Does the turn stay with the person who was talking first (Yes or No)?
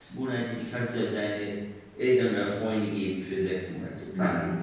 No